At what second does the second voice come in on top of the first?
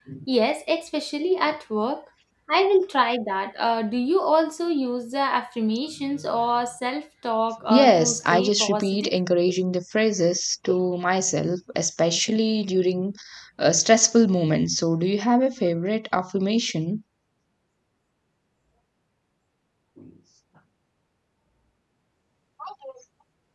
7.7 s

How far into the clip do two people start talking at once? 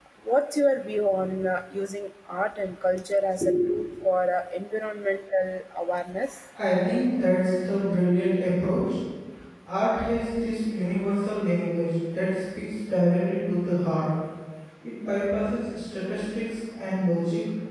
none

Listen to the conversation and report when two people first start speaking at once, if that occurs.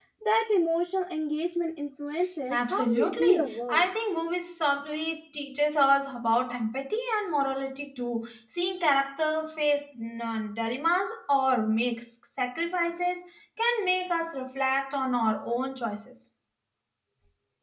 2.5 s

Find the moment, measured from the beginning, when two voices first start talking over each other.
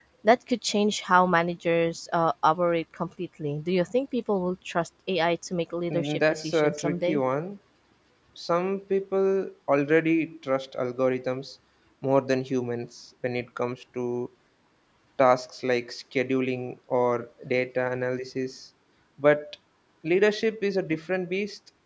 5.9 s

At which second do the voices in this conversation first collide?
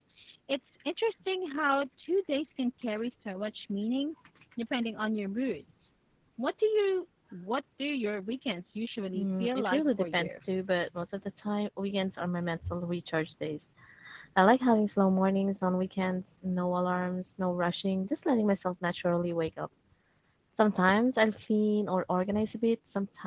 9.1 s

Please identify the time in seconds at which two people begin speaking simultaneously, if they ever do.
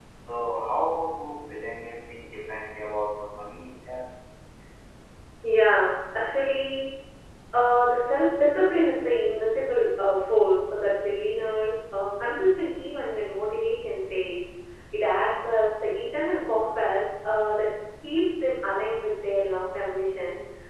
none

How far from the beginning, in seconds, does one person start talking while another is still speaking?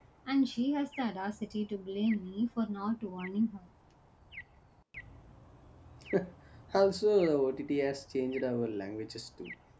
none

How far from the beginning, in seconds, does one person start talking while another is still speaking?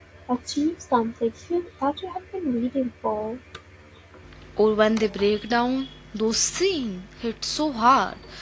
none

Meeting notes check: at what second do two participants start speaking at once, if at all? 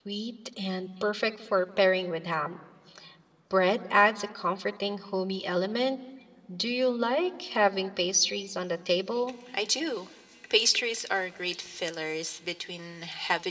none

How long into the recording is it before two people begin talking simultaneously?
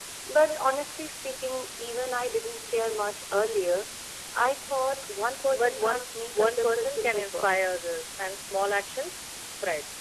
5.5 s

